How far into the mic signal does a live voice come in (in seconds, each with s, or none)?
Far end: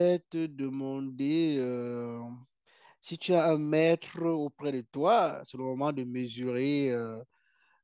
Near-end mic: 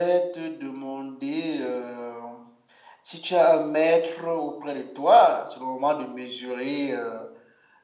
none